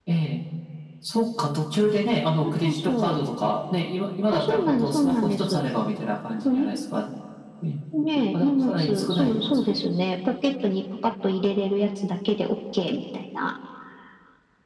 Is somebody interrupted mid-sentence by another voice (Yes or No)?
Yes